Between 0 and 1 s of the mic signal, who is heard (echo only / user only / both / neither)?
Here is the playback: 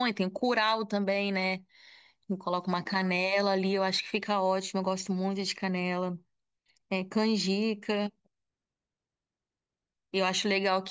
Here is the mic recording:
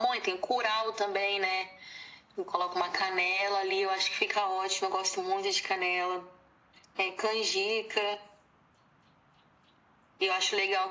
echo only